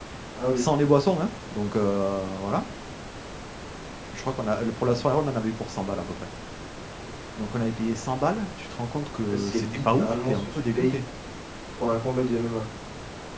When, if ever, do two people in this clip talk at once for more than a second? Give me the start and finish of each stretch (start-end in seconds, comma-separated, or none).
9.2-11.0